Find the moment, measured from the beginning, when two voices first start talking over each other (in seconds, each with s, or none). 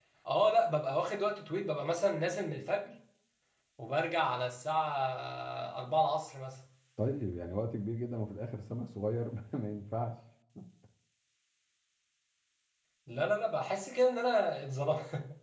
none